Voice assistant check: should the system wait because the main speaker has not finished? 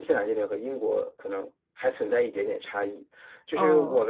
Yes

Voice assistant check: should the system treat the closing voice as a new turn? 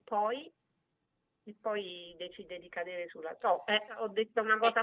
Yes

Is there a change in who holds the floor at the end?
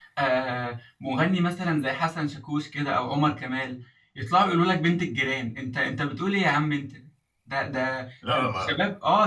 No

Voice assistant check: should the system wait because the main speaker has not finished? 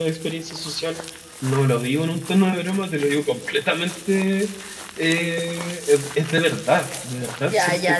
No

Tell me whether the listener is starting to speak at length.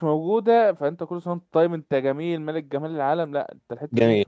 Yes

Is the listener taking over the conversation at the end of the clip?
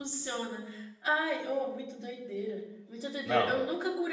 No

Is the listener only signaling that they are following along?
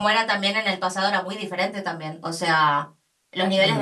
Yes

